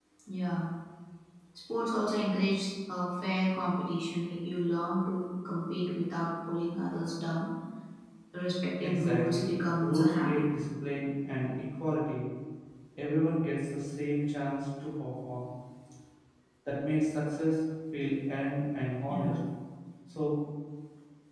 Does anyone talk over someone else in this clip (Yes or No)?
Yes